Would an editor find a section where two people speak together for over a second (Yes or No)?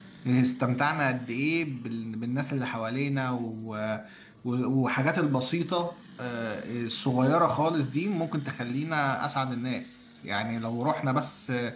No